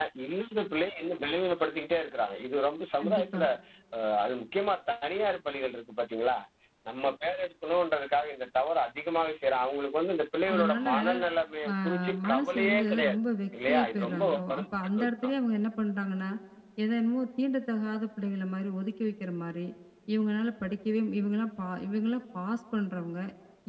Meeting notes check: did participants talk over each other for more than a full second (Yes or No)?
Yes